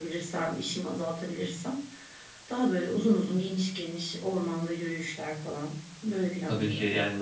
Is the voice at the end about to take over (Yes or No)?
Yes